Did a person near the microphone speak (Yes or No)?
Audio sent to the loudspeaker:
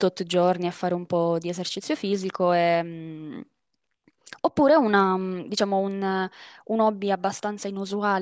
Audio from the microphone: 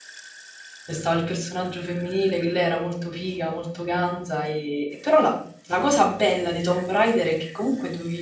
Yes